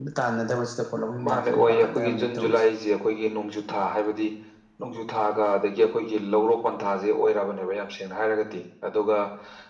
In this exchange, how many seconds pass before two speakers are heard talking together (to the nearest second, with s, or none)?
1 s